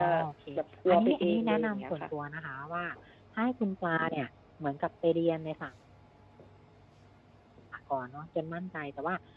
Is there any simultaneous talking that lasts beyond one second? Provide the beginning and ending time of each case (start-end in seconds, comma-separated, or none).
0.9-2.1